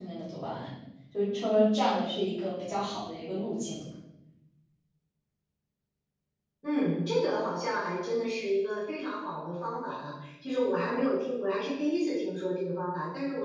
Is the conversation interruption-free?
Yes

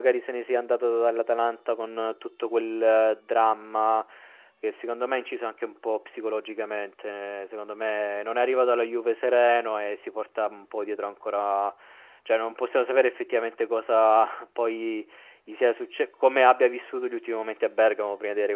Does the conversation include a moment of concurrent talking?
No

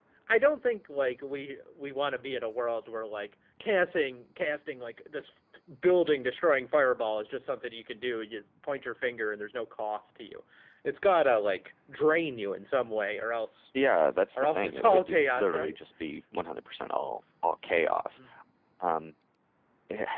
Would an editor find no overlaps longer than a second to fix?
No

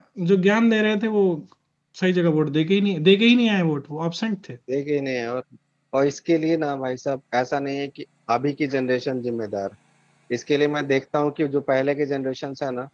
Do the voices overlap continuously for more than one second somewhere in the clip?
No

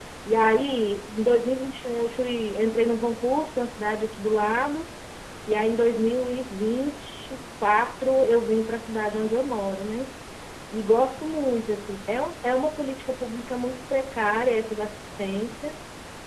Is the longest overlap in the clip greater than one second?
No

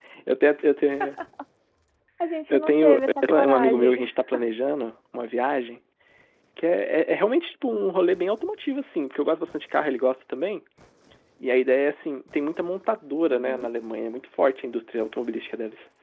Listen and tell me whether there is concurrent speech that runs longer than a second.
Yes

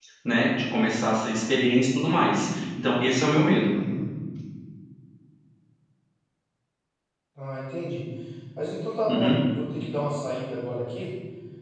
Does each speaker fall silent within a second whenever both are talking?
Yes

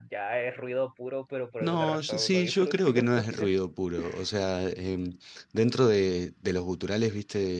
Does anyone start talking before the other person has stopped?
Yes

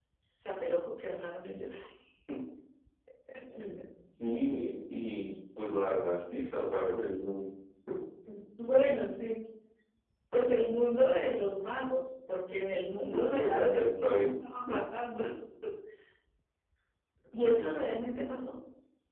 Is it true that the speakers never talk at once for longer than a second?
No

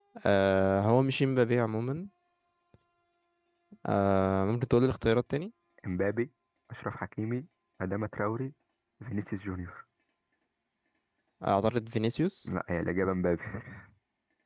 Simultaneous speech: No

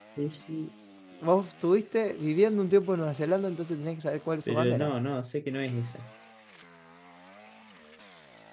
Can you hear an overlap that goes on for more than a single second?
No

